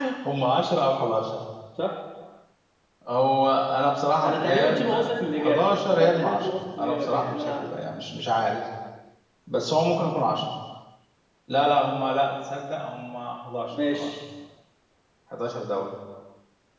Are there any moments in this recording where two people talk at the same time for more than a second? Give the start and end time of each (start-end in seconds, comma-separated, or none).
4.2-7.7